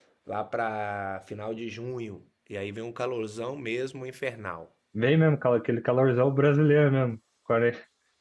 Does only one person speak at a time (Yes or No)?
Yes